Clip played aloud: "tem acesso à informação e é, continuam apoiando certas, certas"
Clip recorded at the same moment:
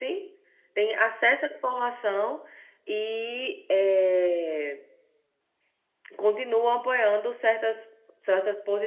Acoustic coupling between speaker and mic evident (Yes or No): Yes